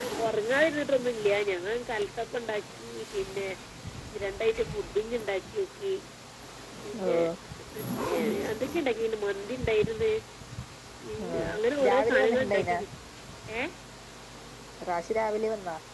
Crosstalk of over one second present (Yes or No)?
Yes